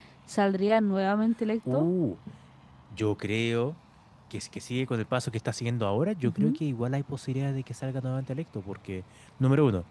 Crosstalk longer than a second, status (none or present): none